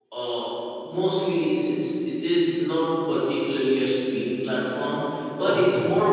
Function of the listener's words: listening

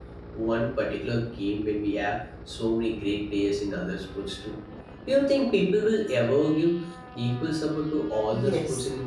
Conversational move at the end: taking over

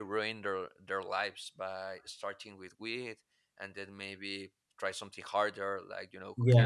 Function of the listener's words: taking over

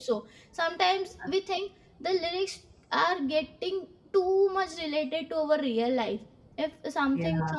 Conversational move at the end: listening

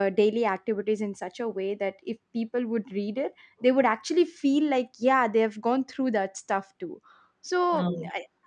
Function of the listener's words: listening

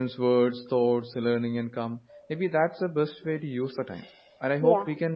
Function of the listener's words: listening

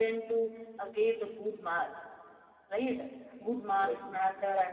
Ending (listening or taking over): listening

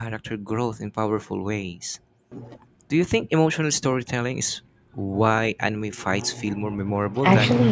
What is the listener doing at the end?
taking over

